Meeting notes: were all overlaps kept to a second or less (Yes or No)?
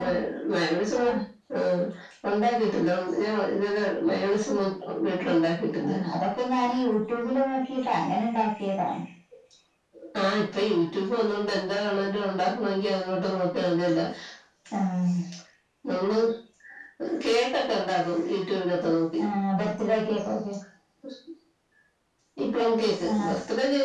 Yes